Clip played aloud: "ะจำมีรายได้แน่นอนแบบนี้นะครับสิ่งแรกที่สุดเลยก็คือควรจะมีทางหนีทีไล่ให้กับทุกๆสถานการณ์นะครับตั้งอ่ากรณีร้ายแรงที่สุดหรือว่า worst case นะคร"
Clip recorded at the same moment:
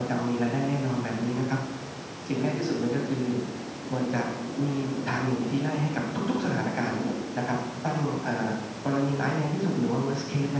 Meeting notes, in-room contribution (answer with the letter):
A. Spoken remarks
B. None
B